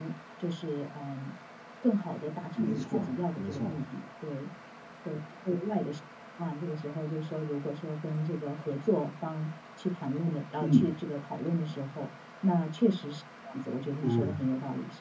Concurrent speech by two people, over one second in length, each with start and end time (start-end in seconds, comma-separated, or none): 2.6-3.8